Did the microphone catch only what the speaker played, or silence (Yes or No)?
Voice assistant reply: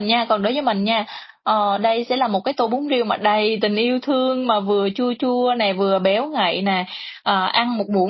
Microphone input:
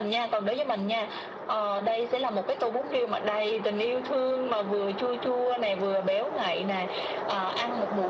Yes